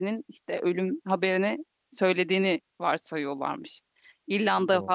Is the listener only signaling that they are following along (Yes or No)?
Yes